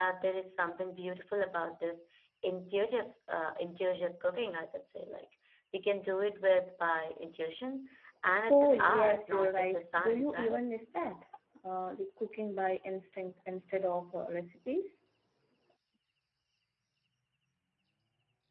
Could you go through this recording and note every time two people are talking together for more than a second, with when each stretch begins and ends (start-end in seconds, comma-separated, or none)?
8.5-10.6